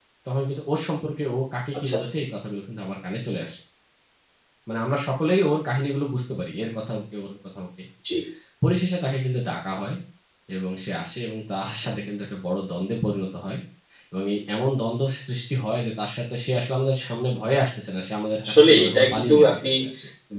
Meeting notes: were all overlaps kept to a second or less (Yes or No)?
No